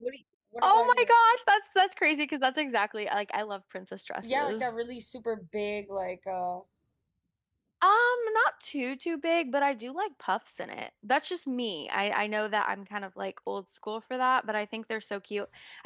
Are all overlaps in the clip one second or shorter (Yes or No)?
Yes